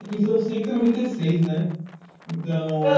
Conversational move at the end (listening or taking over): taking over